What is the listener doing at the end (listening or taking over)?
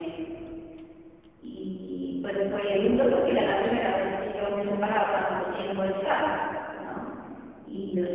listening